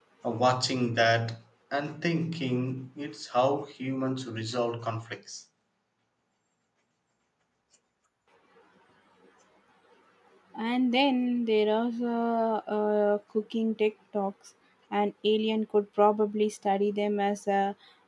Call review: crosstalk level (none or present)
none